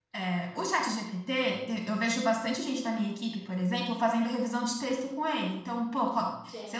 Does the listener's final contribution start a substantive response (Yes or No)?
No